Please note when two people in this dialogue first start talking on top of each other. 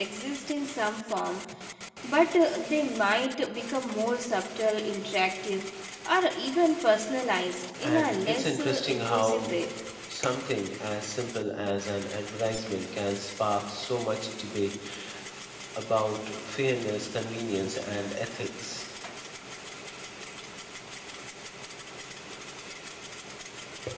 8 s

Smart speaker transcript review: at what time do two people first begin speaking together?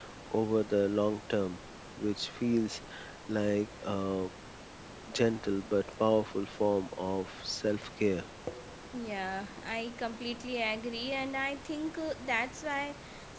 none

